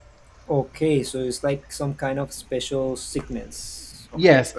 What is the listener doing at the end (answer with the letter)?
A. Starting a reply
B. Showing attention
A